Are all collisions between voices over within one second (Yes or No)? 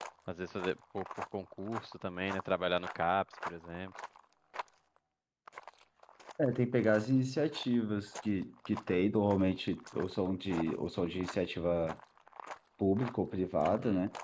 Yes